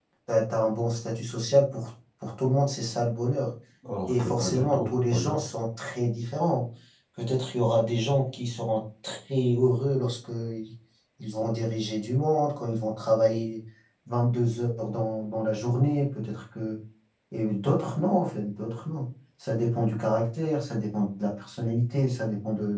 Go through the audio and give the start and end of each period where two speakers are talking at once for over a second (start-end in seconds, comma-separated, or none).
4.1-5.4